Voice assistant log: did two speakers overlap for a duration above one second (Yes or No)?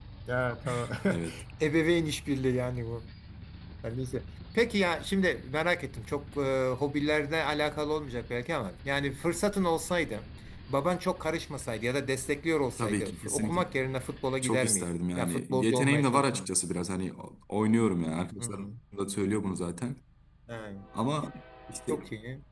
Yes